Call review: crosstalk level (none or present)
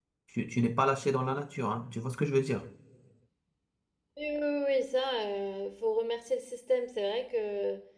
none